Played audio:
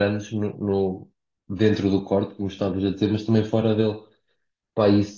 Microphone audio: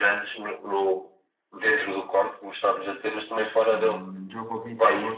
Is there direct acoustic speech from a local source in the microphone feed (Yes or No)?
Yes